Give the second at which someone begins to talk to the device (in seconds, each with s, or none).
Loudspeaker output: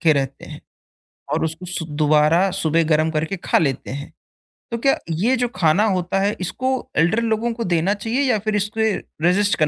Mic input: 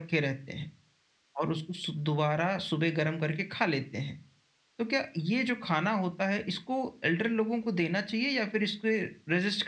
none